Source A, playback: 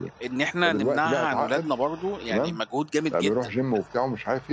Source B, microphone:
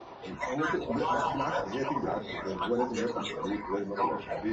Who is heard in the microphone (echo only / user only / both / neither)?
both